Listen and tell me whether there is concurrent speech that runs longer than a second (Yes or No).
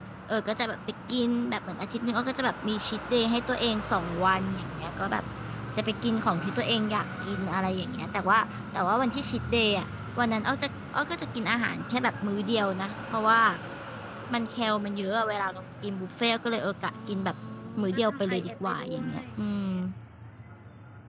Yes